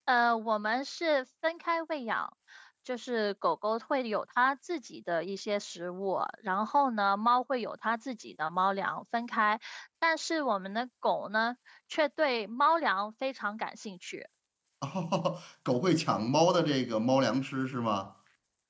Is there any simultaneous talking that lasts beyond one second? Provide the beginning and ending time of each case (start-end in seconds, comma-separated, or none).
none